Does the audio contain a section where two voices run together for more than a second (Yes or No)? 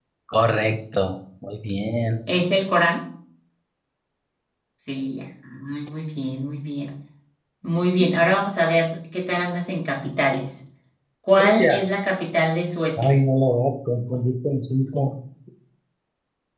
No